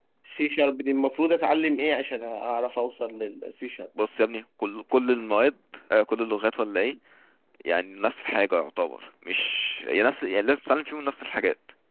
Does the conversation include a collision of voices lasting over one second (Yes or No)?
No